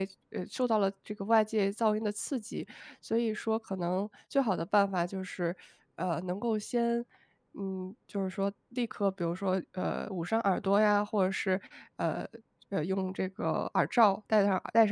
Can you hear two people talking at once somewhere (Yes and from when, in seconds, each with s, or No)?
No